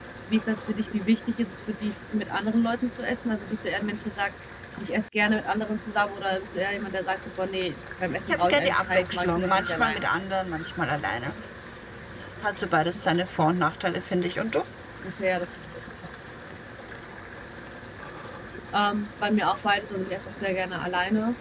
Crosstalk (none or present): present